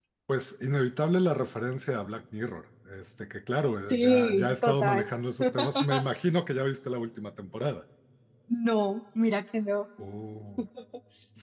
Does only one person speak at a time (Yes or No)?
No